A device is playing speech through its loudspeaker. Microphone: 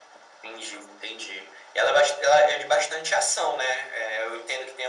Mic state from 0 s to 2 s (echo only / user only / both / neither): echo only